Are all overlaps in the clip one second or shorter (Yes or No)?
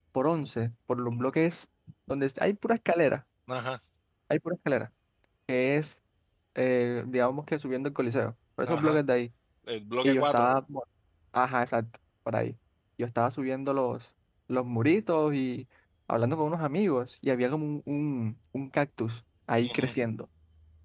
Yes